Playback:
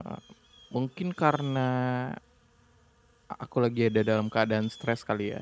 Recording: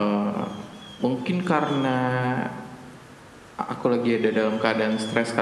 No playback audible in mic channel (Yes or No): No